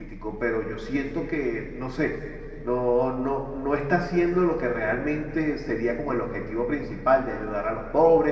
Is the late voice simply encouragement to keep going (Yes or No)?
No